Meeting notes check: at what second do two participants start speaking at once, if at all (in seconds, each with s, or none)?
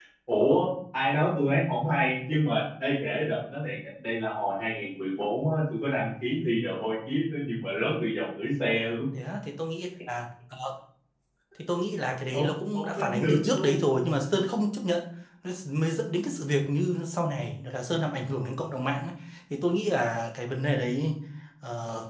12.3 s